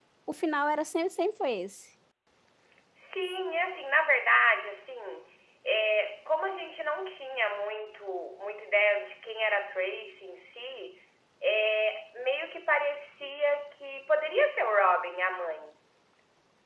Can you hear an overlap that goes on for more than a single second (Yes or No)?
No